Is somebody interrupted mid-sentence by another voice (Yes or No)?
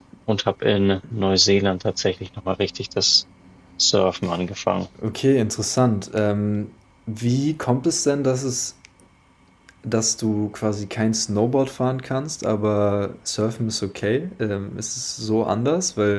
No